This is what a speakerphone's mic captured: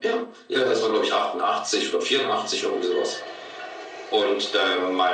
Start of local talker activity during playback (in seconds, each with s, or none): none